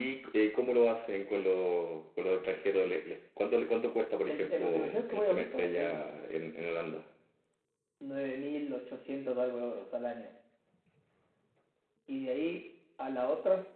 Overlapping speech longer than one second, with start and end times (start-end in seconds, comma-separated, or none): 4.3-6.2